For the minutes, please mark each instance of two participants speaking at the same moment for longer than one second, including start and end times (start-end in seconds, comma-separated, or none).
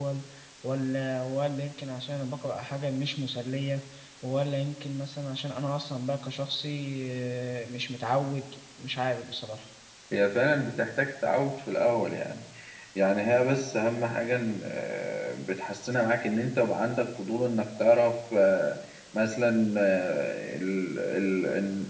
none